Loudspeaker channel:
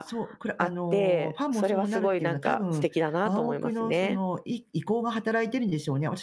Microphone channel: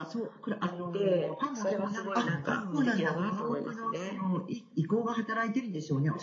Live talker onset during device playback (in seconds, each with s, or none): 2.1 s